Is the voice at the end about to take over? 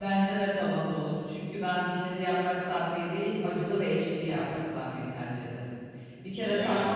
No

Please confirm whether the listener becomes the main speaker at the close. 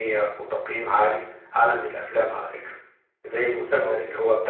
No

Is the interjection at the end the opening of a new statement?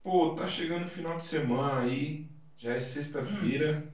No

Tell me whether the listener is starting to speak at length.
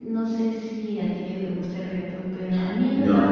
Yes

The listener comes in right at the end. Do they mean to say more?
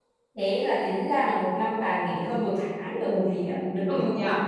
Yes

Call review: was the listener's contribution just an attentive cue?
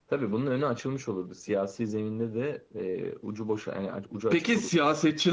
No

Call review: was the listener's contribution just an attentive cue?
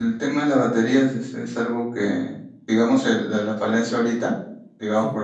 Yes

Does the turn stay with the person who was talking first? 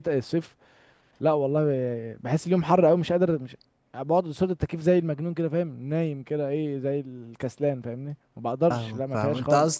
No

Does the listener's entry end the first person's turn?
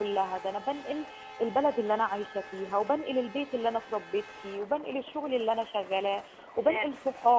No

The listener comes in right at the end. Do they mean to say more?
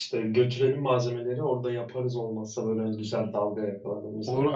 Yes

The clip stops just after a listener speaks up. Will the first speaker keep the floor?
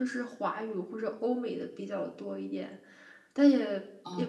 Yes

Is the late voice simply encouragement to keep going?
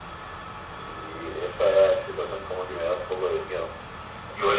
No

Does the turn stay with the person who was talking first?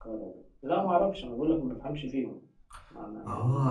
No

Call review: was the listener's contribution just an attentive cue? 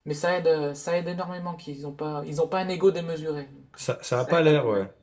No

